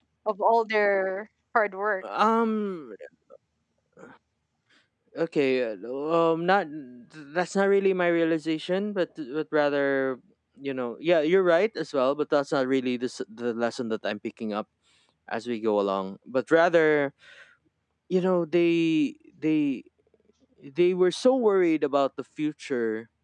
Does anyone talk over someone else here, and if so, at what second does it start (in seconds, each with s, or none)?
none